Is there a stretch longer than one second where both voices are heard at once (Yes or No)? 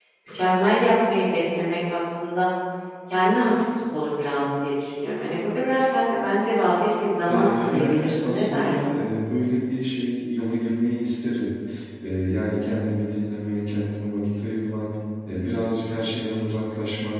Yes